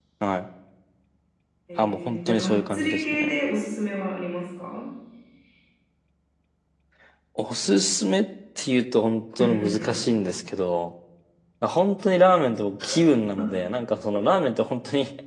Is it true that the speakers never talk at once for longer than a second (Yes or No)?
No